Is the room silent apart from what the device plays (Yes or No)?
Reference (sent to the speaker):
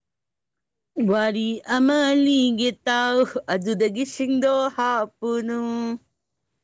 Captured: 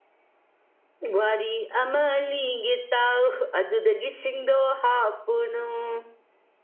Yes